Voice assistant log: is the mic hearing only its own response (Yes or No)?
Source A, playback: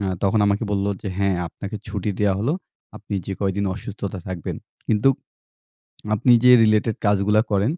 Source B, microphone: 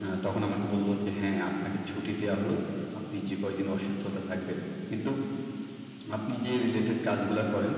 Yes